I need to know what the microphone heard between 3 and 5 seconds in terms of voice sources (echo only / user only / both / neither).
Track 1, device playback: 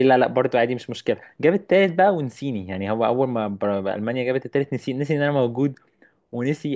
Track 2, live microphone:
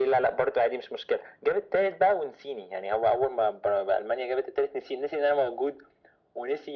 echo only